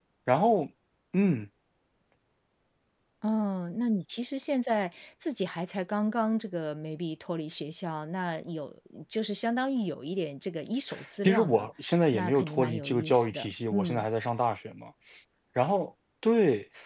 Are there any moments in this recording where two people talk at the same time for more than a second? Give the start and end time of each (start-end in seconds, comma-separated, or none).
12.1-14.1